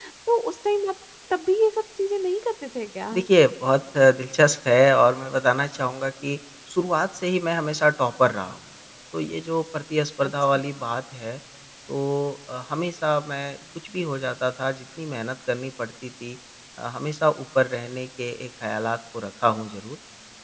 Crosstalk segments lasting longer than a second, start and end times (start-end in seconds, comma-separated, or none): none